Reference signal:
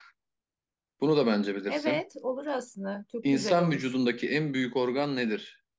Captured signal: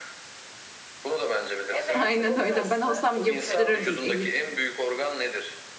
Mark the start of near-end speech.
1.9 s

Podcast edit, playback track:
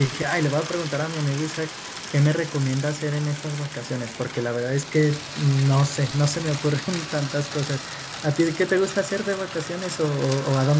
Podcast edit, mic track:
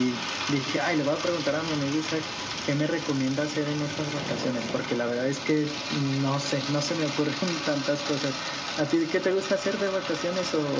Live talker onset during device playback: none

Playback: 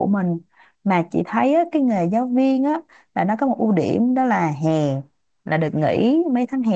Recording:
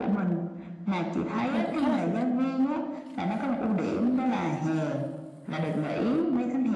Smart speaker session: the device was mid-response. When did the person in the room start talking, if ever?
1.5 s

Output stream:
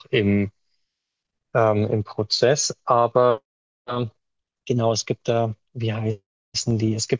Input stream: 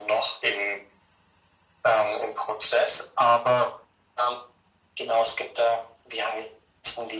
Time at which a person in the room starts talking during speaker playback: none

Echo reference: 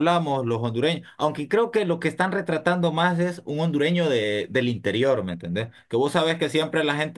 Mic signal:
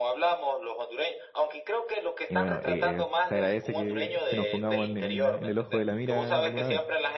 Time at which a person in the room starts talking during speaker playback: 2.3 s

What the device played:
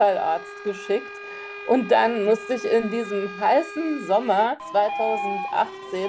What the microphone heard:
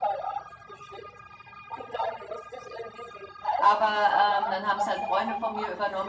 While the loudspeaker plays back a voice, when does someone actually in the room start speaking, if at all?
3.6 s

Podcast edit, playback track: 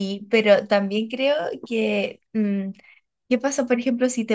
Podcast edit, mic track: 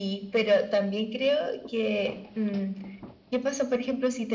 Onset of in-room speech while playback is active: none

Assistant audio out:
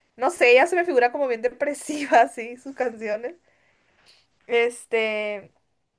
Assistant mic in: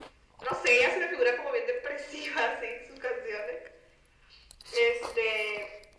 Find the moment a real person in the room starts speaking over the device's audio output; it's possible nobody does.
none

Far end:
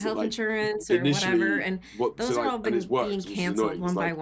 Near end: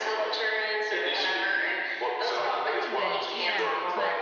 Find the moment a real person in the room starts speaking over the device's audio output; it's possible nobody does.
2.3 s

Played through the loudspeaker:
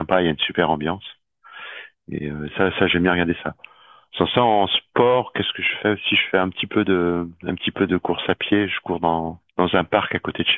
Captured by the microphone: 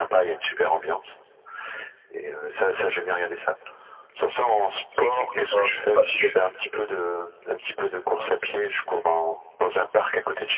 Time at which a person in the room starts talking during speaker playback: 4.9 s

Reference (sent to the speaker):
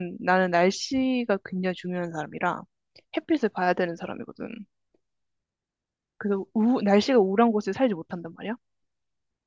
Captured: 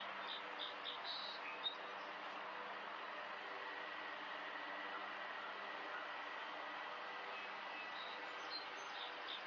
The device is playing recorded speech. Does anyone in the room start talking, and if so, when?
none

